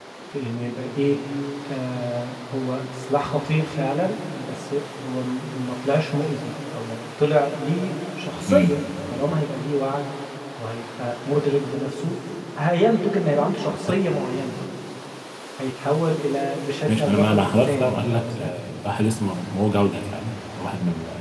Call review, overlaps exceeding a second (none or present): present